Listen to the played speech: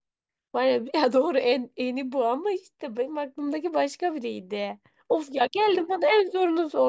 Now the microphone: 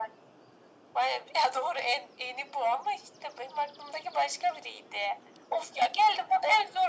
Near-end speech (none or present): none